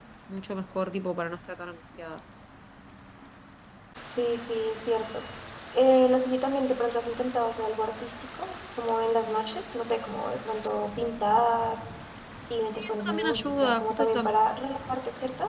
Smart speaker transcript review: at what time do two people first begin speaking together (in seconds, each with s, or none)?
12.8 s